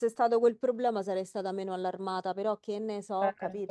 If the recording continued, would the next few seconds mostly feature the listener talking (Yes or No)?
Yes